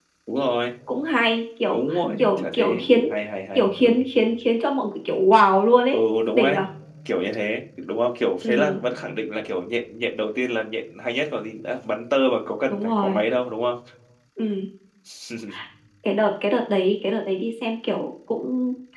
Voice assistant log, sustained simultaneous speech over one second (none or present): present